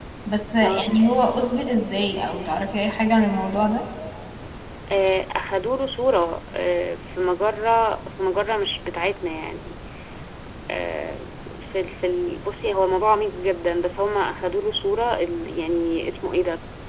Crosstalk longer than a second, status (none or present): none